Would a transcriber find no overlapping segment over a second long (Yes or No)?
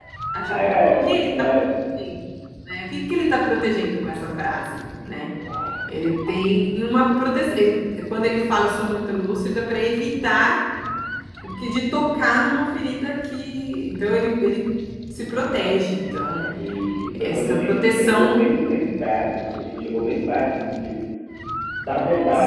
No